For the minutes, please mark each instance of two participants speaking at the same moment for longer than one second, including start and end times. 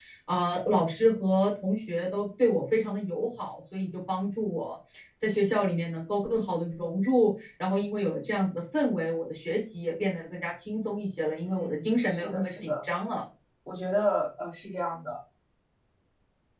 11.5-12.7

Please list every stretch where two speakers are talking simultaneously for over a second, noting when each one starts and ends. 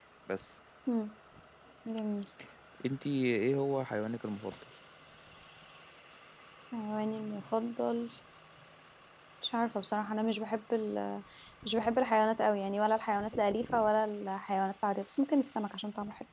none

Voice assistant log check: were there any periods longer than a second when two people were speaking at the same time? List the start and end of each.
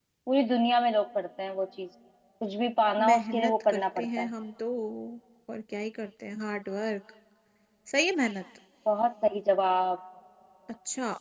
3.0-4.3

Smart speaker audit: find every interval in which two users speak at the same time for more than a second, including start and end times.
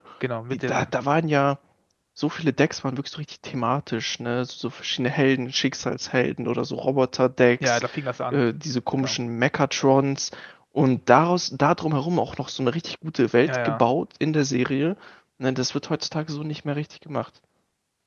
none

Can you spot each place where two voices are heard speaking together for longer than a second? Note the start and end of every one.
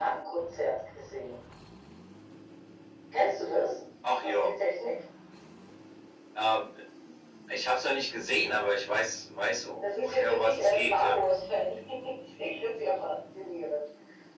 9.8-11.2

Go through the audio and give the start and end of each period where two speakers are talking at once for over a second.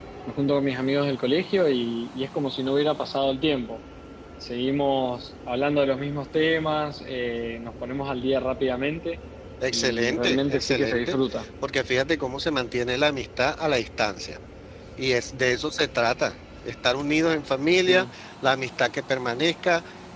9.7-11.2

